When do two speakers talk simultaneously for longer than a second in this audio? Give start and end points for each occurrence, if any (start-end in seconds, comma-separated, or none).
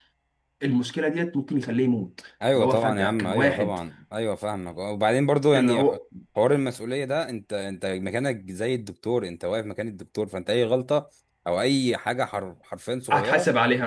2.5-3.8